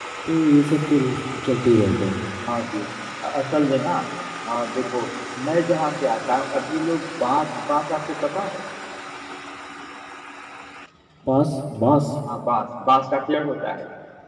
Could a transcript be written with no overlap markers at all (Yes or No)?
Yes